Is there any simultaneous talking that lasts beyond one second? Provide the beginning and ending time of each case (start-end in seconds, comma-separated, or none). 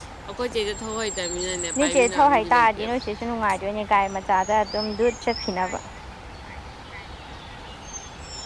1.8-3.0